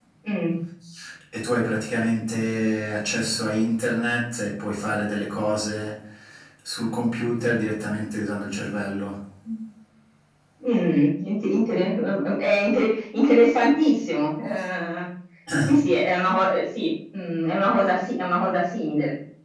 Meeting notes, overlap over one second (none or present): none